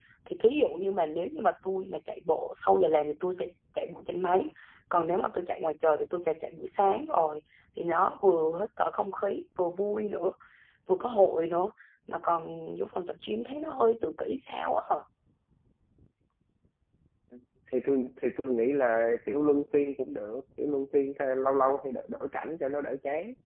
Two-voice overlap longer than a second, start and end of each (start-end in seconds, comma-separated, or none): none